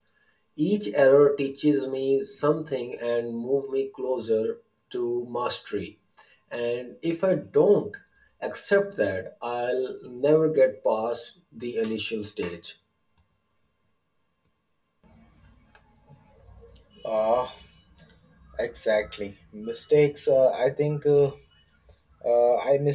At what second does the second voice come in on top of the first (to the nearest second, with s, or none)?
none